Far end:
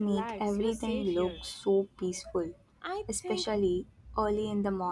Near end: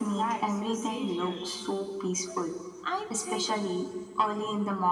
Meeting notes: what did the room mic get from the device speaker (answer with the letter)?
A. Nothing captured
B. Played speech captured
B